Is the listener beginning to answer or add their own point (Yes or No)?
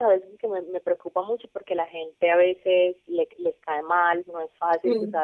No